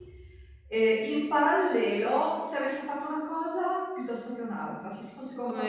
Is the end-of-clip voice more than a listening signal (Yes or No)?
No